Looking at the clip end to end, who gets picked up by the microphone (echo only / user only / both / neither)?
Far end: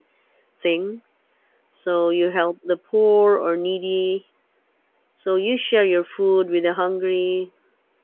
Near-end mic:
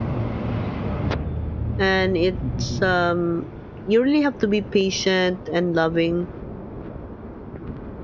user only